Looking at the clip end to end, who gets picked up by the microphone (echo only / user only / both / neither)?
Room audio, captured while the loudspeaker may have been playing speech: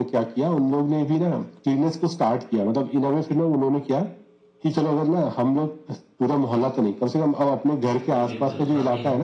both